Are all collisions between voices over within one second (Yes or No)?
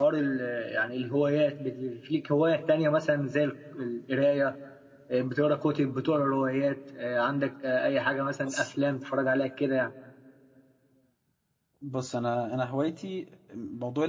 Yes